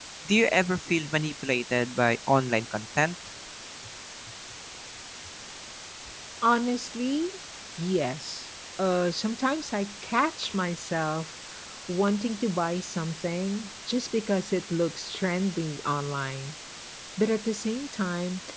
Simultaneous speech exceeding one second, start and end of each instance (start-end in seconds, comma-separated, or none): none